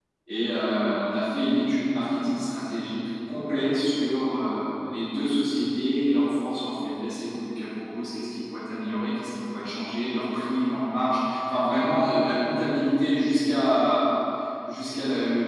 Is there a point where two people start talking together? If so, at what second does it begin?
none

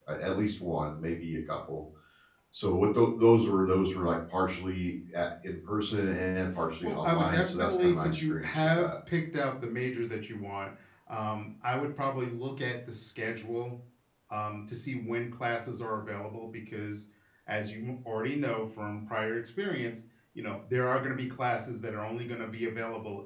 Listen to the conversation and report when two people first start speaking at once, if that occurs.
6.8 s

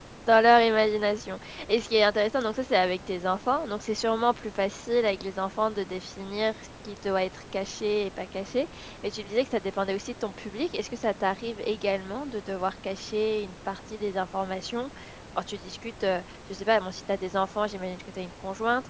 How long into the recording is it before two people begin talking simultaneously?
none

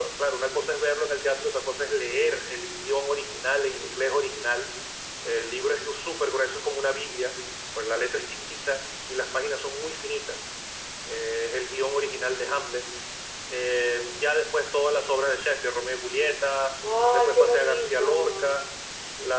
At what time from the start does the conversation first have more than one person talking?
17.1 s

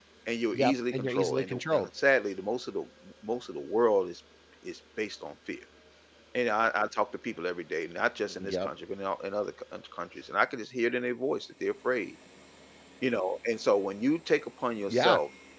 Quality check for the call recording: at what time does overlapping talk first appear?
0.5 s

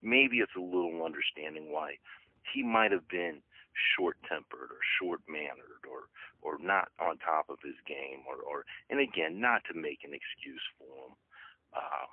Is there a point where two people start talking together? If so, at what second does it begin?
none

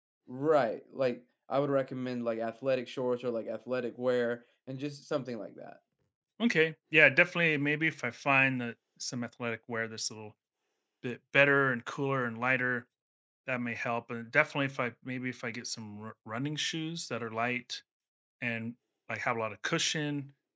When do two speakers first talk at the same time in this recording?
none

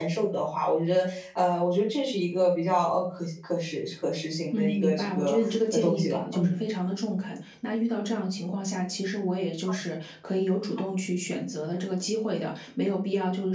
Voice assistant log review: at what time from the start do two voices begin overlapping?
4.5 s

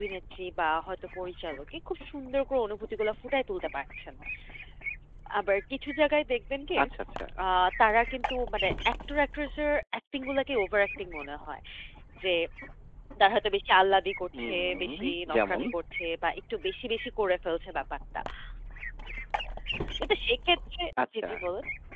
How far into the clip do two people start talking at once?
14.4 s

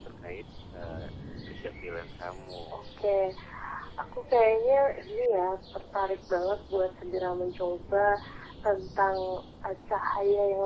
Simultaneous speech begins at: none

